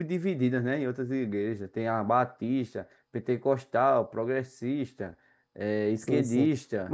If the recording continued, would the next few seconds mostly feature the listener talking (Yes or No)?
Yes